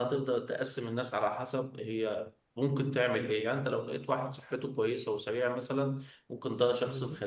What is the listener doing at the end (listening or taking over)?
listening